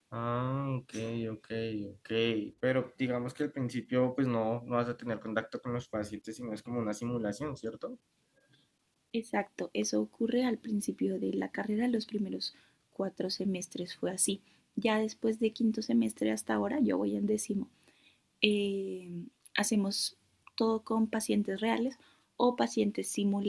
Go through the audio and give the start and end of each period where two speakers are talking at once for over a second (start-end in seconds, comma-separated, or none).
none